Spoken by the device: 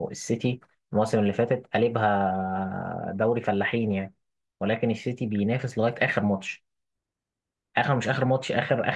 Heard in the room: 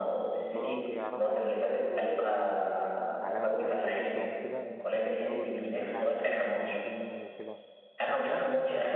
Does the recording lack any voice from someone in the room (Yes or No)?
No